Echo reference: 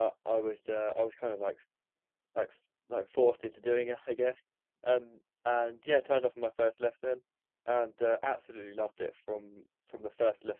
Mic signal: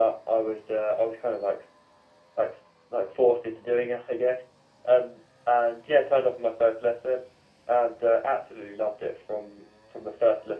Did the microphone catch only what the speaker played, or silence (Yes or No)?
Yes